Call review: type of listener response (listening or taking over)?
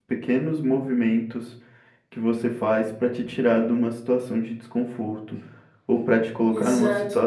listening